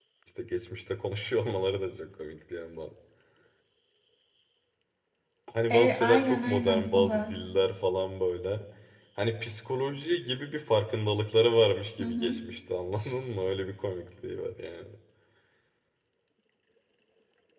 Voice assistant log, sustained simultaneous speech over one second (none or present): present